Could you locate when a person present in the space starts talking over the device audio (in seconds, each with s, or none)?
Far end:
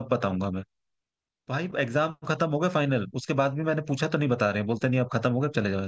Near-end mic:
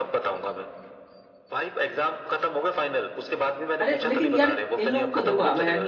3.8 s